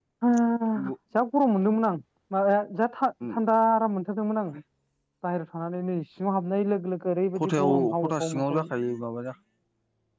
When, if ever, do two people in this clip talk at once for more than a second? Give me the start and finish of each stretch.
7.4-8.7

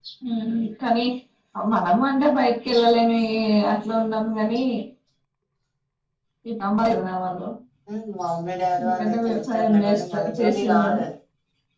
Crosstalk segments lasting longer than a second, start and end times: 8.8-11.0

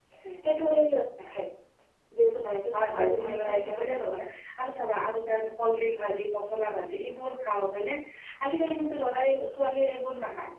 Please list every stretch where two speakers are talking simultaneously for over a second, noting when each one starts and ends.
2.7-4.2

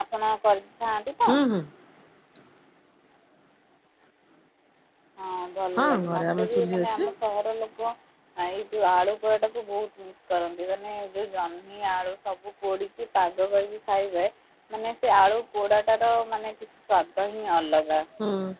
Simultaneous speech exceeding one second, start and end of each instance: 5.8-7.1

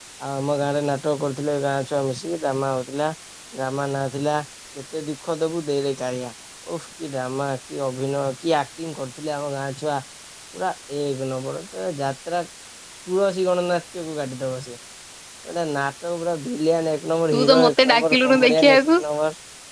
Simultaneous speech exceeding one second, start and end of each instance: 17.3-18.8

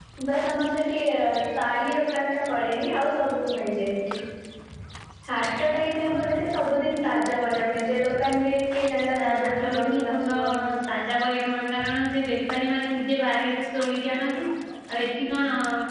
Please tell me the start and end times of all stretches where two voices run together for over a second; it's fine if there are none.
9.1-10.3

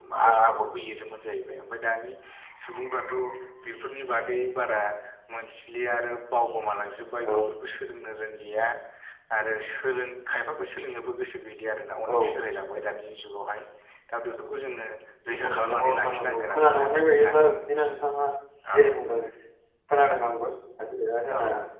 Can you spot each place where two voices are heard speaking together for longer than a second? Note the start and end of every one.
15.3-17.4

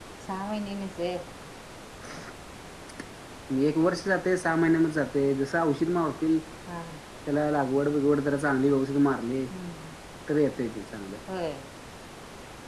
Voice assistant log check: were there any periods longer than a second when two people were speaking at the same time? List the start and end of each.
none

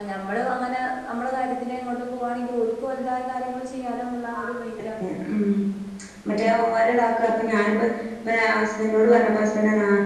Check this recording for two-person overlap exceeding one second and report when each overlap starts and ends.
none

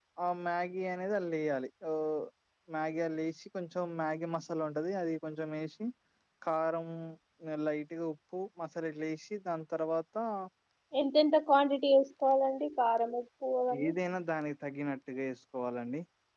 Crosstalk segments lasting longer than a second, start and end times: none

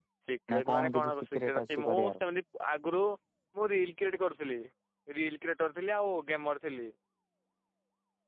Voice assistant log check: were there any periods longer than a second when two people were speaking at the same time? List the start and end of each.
0.5-2.2

